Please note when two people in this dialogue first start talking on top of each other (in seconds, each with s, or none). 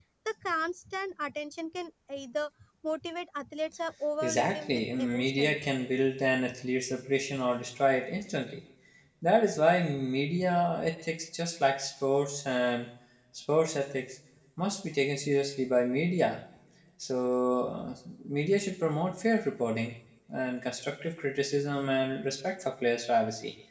4.2 s